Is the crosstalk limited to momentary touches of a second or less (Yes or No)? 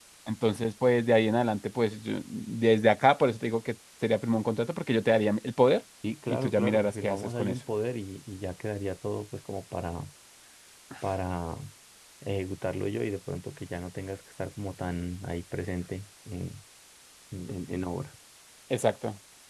No